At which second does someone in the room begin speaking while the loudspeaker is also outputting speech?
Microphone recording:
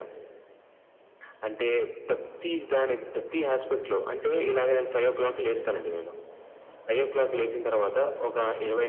none

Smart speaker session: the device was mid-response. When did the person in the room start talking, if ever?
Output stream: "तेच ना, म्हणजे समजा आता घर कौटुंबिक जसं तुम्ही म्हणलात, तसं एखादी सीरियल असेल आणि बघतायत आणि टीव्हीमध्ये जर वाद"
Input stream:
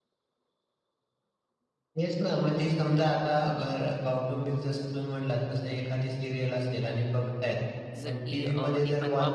7.9 s

